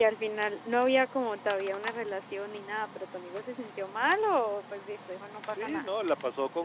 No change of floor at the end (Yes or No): No